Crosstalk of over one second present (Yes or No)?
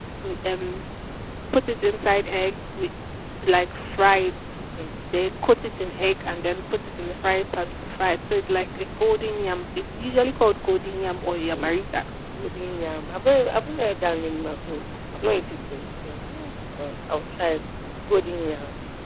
No